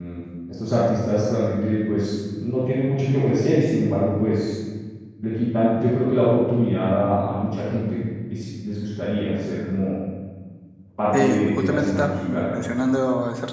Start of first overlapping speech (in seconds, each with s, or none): 11.2 s